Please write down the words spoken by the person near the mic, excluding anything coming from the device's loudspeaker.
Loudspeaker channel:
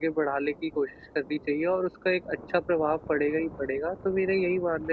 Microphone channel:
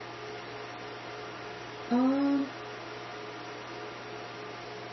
अ,

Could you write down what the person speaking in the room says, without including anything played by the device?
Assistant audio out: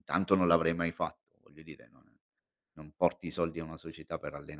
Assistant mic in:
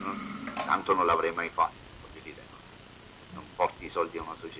none

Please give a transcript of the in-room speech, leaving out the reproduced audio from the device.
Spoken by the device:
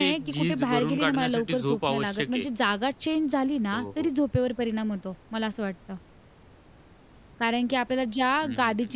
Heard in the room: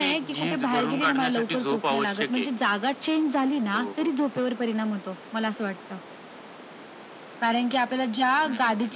none

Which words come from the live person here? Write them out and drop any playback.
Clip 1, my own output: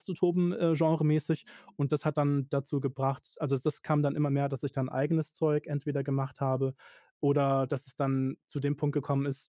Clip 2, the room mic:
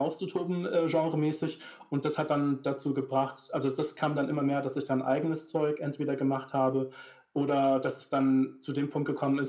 none

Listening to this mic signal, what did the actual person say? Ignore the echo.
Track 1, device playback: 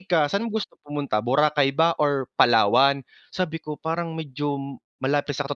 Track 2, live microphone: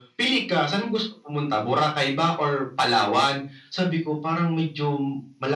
none

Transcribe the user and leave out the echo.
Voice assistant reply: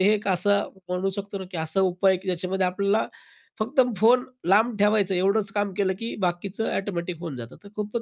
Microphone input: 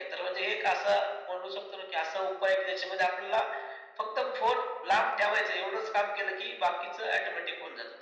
none

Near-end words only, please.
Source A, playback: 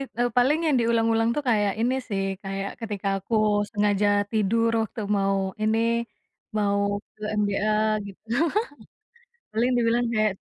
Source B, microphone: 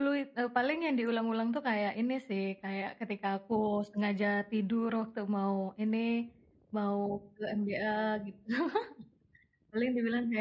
none

